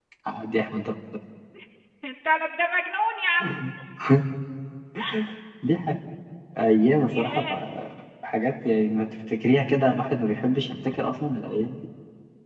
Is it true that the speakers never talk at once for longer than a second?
Yes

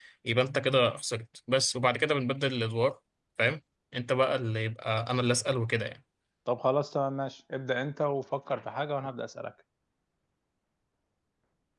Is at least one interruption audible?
No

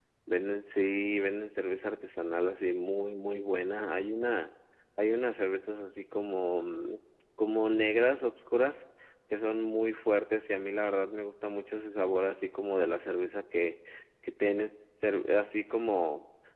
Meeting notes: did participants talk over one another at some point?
No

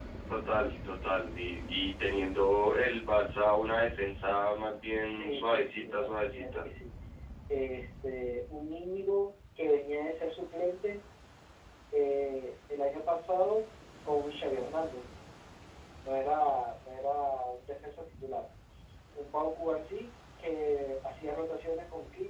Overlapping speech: Yes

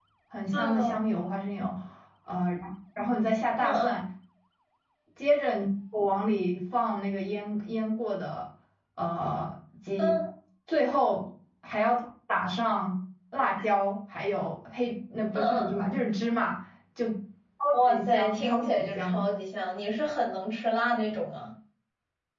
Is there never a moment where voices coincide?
No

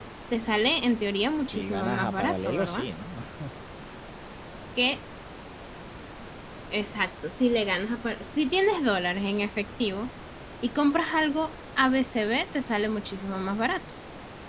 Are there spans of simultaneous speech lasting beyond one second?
Yes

